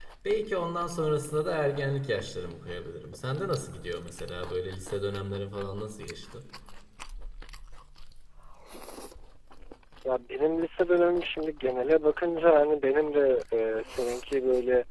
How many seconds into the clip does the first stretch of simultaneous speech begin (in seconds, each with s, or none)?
none